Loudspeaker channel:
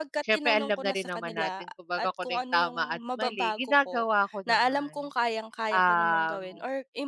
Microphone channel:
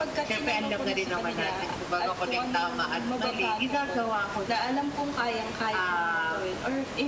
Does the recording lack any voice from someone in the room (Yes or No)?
Yes